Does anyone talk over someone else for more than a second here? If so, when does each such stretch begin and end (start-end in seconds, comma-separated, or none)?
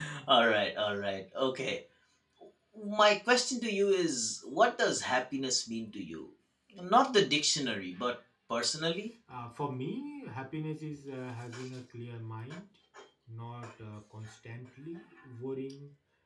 none